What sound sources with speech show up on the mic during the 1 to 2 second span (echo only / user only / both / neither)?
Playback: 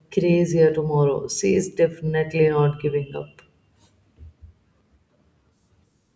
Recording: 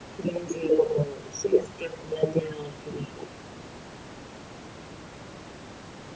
echo only